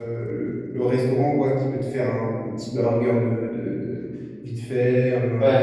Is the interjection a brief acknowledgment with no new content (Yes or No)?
No